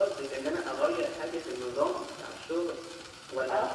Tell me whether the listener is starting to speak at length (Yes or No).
Yes